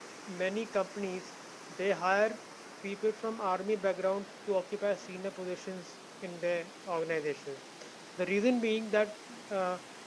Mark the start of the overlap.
none

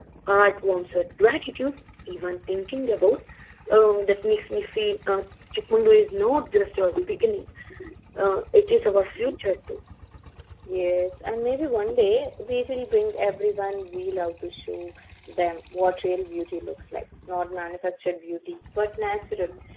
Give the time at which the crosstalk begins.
none

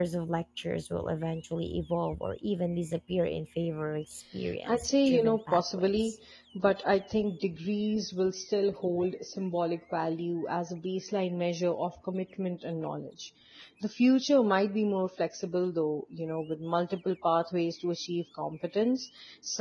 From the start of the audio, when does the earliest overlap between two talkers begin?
4.7 s

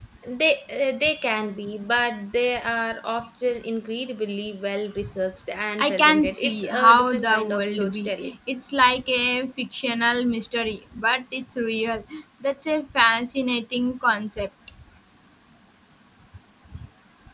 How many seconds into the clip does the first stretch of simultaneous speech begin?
5.8 s

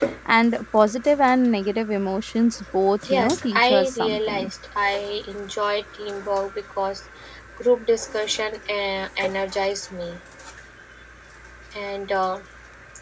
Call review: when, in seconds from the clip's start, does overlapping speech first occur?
3.0 s

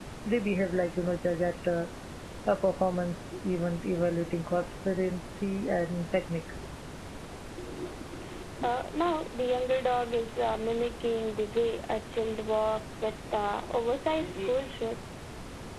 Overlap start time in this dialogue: none

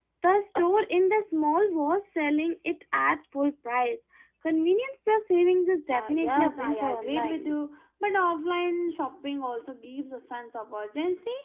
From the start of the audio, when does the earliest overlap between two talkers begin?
5.9 s

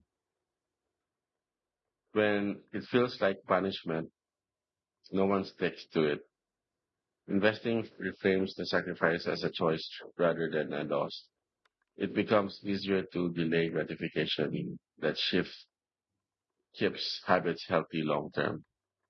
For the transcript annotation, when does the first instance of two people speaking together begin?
none

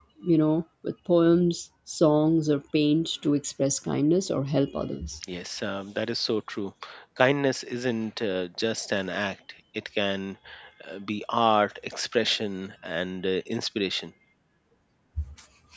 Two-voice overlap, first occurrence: none

